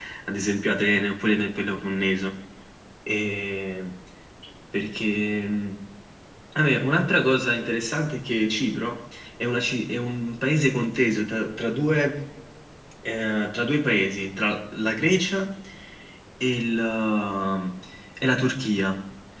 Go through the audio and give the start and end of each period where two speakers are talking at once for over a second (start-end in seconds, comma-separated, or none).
none